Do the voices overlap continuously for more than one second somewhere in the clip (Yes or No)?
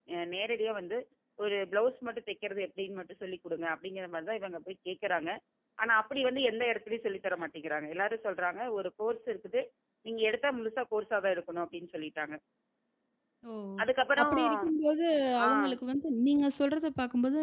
No